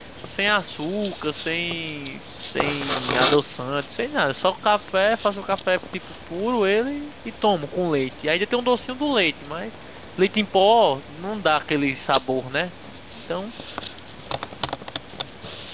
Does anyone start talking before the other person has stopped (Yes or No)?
No